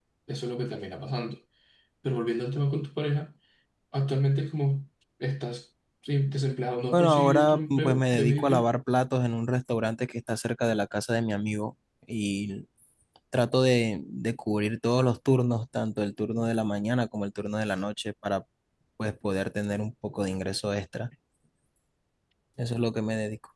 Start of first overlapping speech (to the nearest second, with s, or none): 7 s